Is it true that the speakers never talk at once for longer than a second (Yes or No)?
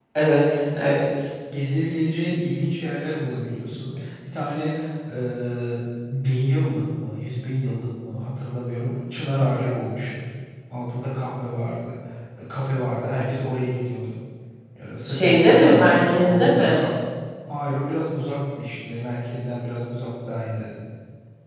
No